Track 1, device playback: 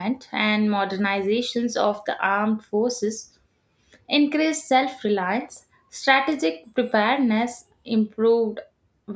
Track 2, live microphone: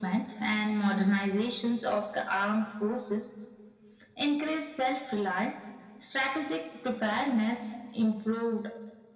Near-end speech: none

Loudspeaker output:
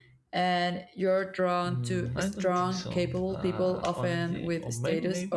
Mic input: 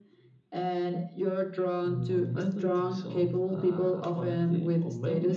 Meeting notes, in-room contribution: none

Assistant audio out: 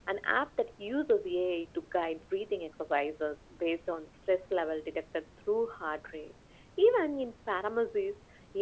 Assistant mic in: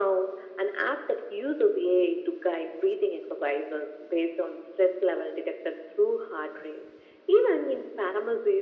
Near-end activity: none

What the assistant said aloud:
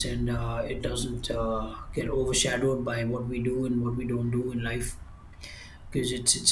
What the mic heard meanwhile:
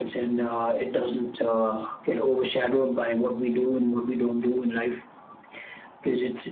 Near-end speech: none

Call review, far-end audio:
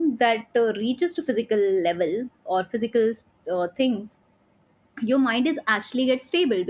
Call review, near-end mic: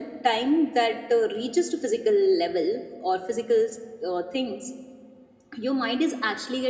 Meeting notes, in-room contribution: none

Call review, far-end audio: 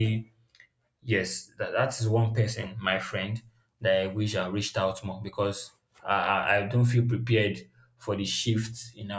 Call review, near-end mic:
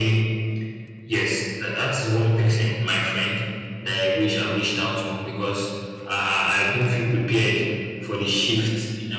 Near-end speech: none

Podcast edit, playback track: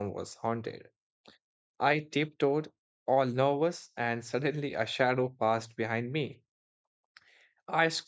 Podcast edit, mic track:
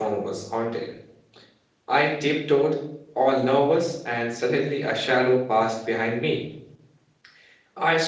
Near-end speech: none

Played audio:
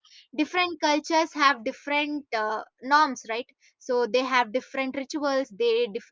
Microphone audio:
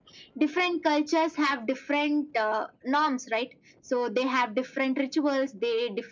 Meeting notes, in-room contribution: none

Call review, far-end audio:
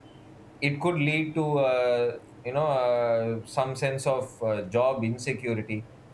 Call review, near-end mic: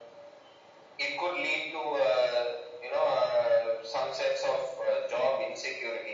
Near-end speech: none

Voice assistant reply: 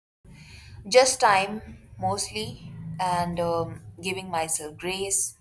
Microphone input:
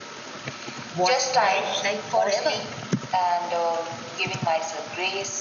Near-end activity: present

